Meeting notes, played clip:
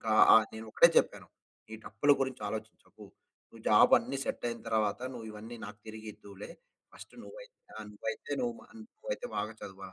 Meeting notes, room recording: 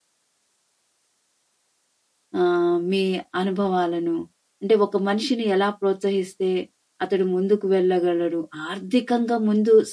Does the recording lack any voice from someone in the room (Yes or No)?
No